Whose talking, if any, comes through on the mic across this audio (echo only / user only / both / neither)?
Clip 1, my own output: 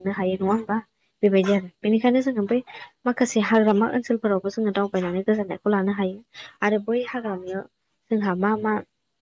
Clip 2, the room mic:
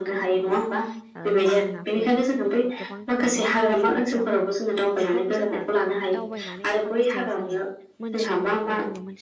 both